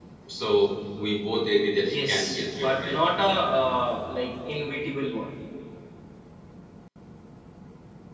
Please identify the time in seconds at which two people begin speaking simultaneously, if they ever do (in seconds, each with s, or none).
1.8 s